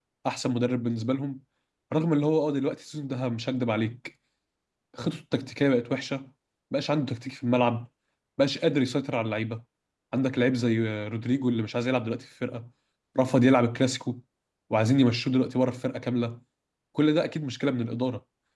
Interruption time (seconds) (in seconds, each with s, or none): none